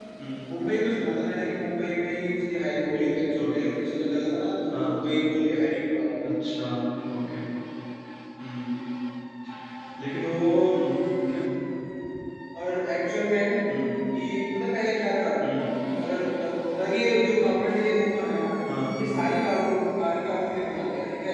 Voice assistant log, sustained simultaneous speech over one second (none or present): none